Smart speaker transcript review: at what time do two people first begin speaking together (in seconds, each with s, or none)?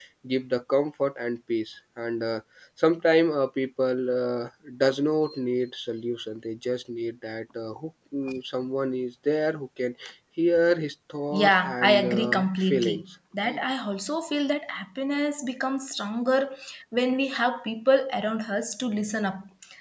11.3 s